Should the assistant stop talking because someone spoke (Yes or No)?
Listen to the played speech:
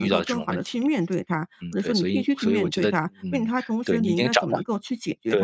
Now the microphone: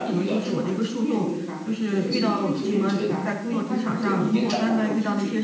Yes